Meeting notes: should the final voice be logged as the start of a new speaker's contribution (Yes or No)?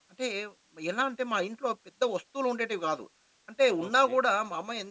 No